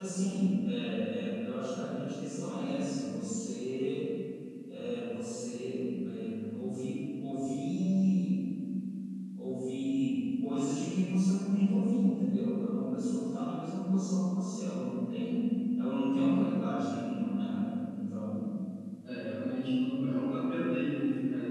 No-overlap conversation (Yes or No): Yes